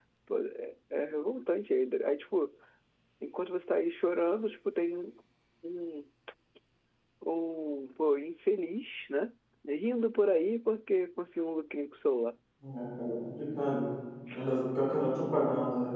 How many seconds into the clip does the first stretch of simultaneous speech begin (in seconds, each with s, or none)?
none